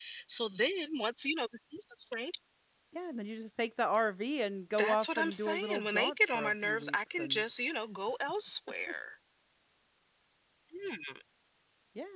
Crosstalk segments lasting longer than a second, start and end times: 4.8-7.4

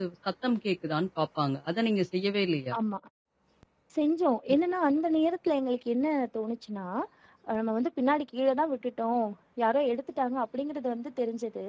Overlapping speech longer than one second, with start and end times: none

